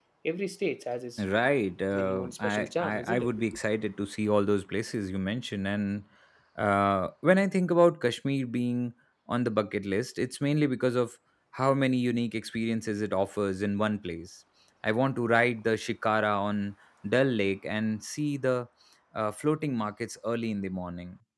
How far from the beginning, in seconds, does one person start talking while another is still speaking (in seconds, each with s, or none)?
1.9 s